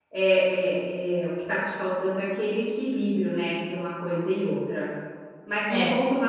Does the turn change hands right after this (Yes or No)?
No